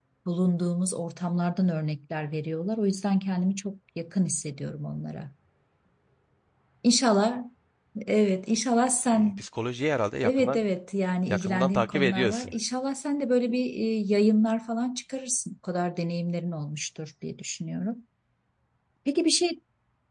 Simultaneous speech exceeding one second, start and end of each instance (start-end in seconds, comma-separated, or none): 11.3-12.5